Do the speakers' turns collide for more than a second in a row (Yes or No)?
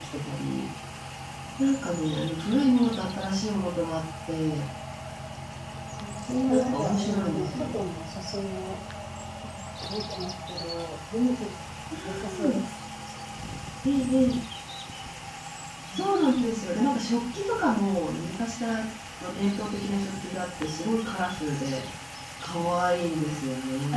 Yes